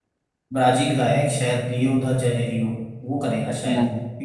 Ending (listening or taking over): listening